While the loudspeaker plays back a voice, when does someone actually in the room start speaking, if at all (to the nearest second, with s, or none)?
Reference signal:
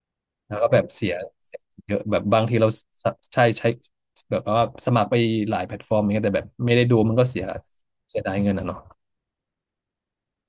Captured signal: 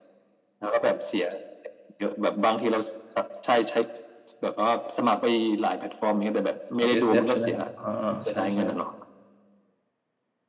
7 s